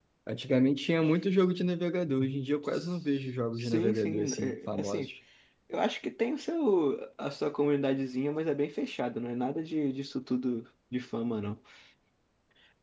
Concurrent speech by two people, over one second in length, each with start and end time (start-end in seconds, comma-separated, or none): 3.6-5.1